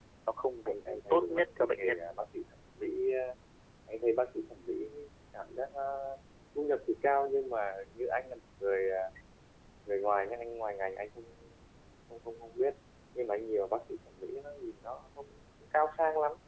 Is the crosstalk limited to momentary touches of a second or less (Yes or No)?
No